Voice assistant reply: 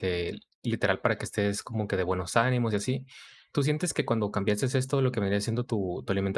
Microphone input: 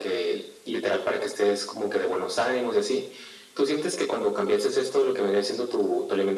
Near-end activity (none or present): none